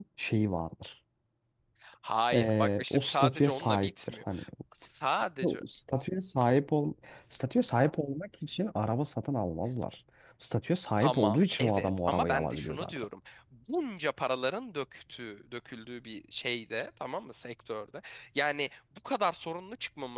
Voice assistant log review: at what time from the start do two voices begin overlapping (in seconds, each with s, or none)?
2.3 s